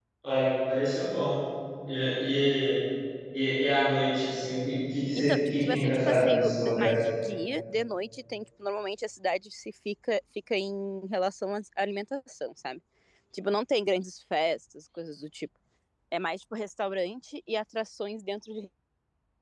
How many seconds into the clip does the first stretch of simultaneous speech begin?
5 s

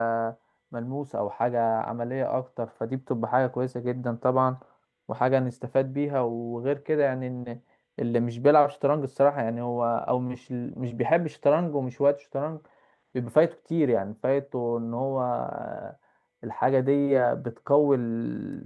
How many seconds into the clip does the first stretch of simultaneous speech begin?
none

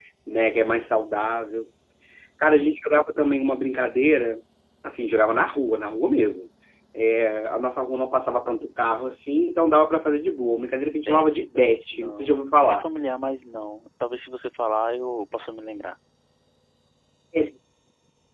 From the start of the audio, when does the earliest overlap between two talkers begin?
11 s

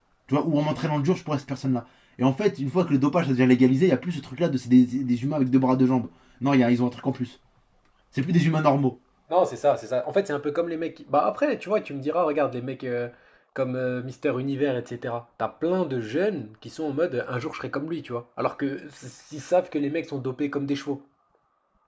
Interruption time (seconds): none

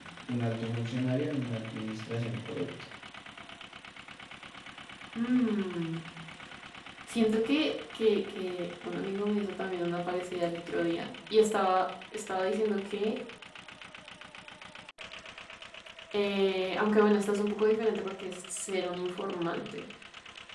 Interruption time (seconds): none

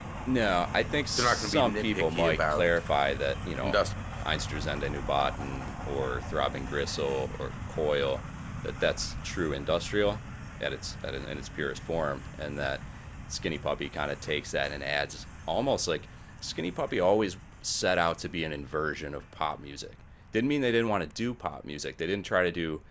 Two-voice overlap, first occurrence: 1 s

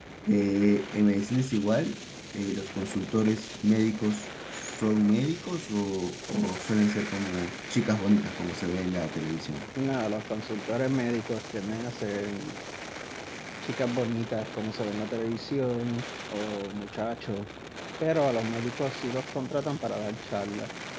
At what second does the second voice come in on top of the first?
none

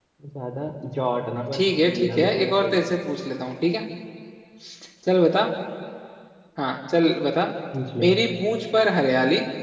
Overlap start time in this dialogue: 1 s

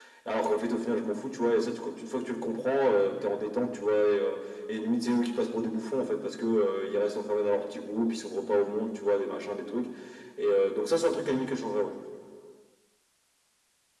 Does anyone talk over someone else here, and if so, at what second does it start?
none

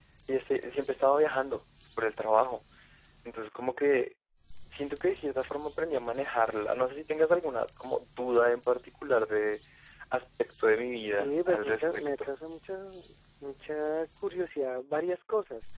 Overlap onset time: 11 s

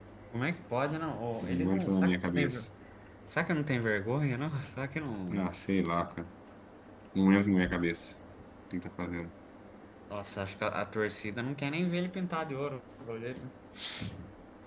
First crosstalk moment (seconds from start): 1 s

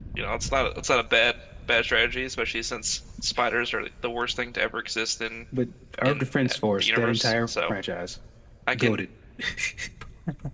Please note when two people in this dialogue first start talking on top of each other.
6 s

